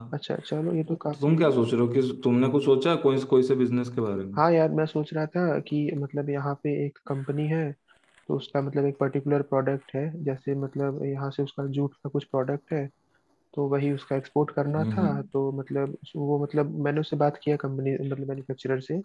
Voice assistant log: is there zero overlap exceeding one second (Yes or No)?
Yes